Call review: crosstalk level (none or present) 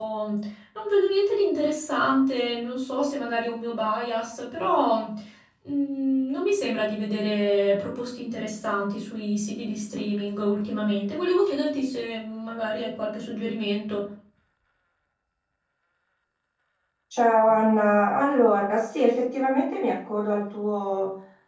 none